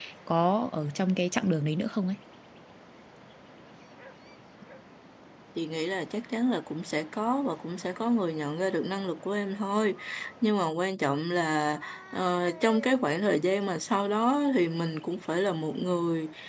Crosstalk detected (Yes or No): No